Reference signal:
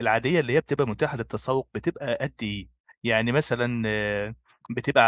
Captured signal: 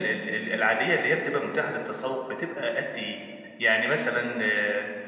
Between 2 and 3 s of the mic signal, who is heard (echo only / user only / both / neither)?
echo only